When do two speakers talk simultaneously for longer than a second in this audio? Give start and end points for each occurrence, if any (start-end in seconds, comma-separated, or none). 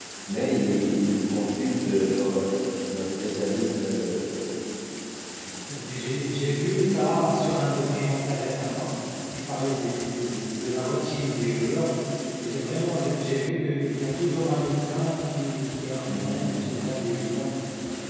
none